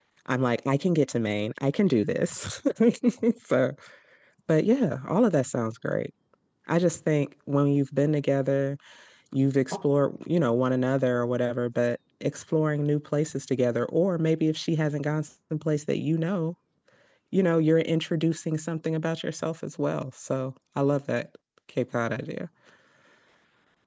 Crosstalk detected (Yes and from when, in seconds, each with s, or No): No